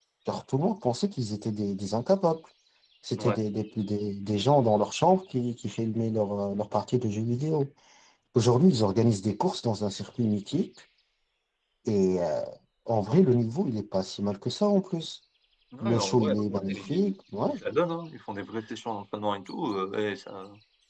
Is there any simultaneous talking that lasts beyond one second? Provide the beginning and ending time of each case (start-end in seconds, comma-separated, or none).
15.8-17.1